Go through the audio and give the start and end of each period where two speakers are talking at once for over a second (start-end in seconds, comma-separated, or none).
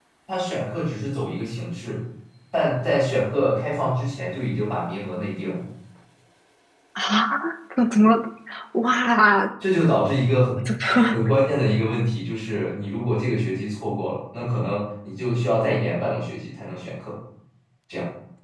none